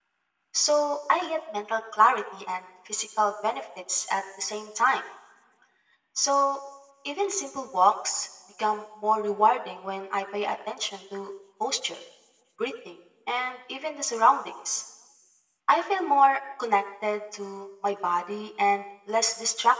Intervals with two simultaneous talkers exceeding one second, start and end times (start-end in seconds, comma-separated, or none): none